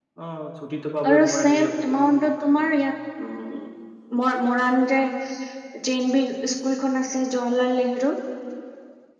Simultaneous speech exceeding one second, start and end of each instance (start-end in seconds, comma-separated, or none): 1.1-2.7